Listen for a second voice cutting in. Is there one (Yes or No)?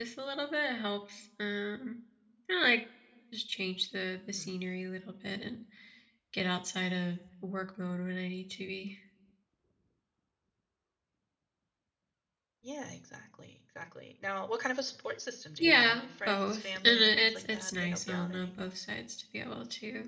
Yes